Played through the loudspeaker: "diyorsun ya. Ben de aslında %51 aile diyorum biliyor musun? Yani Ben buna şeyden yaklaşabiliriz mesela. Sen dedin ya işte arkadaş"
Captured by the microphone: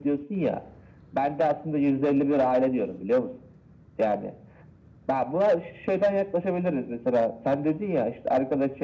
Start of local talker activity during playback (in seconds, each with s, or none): none